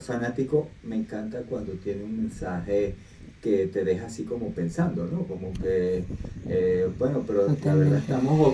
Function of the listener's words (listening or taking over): listening